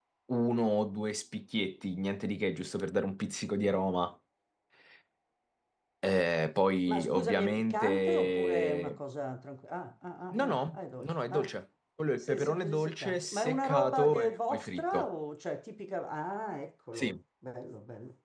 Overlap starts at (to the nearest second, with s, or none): 7 s